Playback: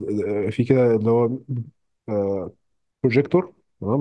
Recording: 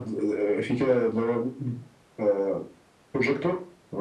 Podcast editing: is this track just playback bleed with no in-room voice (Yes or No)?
Yes